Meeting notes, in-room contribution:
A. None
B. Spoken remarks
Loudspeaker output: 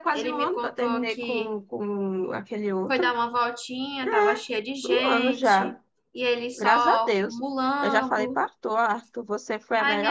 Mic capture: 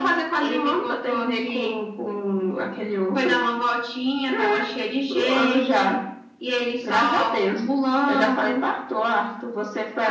A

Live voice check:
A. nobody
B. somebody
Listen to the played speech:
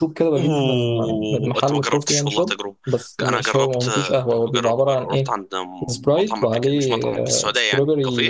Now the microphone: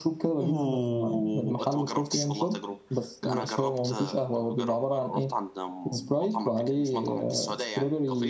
A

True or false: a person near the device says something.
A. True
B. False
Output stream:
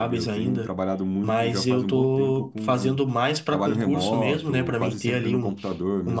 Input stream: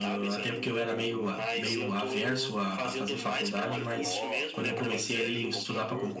A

